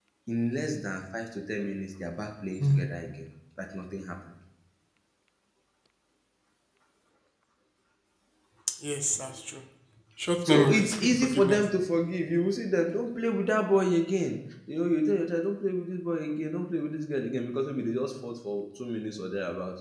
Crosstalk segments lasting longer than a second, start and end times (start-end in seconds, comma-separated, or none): 10.4-11.6